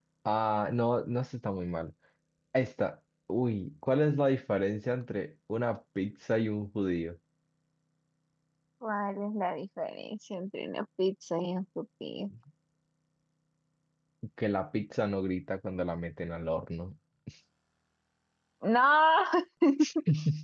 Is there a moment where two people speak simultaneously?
No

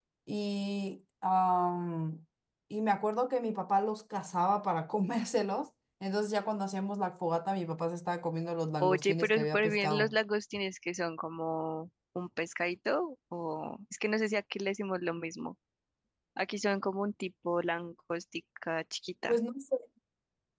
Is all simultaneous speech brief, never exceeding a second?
No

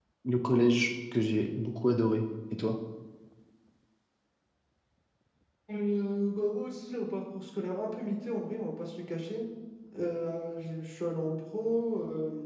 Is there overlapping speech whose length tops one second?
No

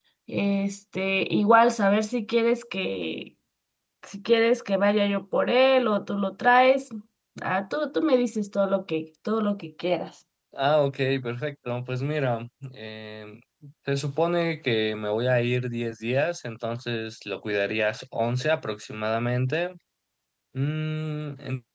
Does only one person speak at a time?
Yes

